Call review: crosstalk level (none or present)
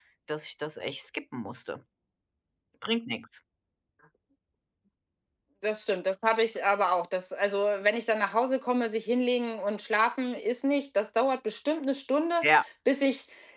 none